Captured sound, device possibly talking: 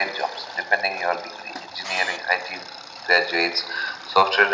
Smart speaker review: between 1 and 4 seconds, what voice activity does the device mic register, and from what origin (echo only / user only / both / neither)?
echo only